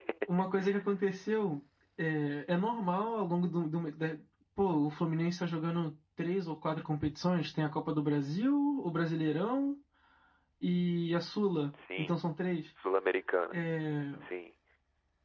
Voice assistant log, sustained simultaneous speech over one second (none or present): none